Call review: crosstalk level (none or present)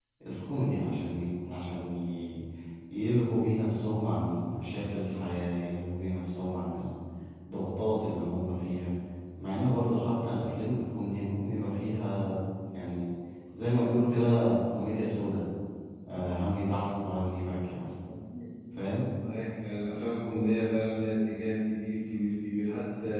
none